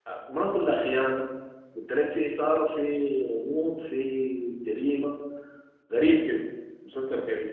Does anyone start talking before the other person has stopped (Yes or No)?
No